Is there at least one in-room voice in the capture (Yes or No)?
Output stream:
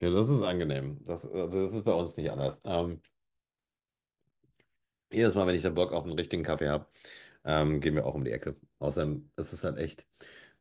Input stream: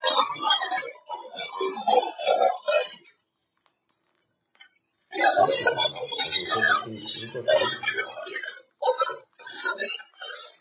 Yes